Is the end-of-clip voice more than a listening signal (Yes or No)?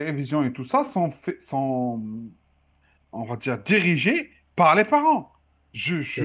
No